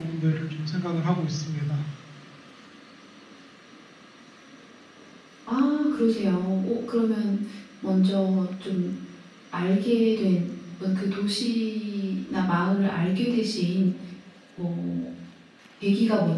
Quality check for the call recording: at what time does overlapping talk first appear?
none

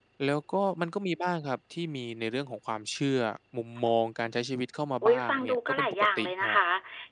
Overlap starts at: 5.0 s

